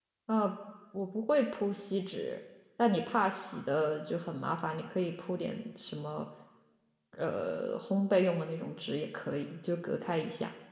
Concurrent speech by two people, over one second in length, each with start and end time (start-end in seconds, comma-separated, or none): none